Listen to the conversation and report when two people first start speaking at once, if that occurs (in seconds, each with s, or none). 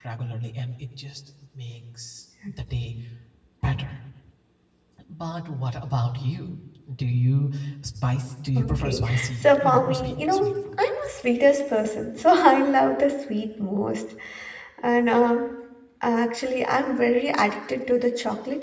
8.6 s